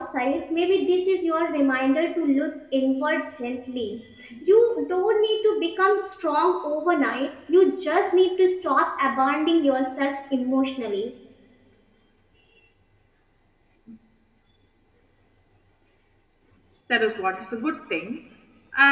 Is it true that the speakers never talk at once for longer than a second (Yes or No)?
Yes